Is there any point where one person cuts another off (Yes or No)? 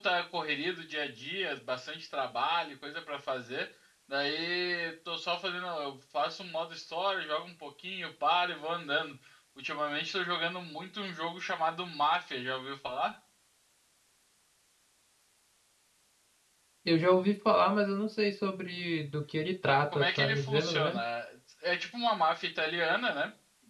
Yes